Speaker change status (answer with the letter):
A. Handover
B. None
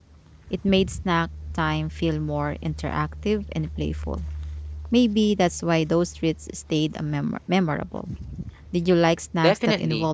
A